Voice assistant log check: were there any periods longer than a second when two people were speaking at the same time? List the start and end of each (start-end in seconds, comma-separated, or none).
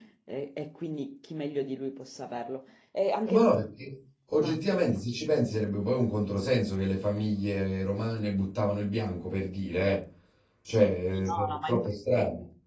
10.7-11.9